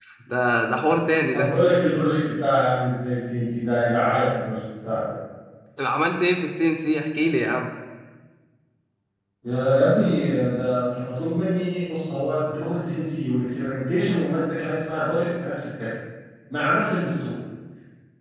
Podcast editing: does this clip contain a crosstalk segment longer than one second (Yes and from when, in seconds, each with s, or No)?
No